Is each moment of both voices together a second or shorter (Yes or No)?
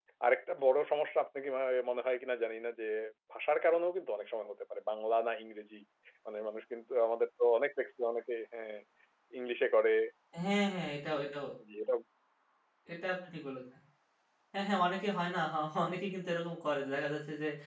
Yes